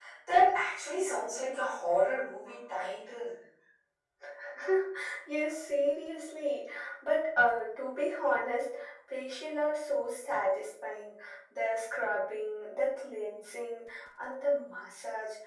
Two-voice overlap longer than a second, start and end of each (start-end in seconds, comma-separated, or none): none